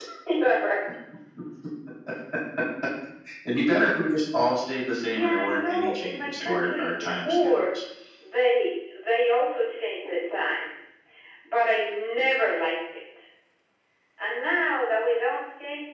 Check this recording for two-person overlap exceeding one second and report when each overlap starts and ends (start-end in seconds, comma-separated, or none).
5.0-7.7